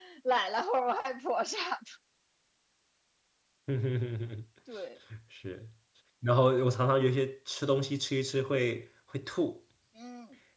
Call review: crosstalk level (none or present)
none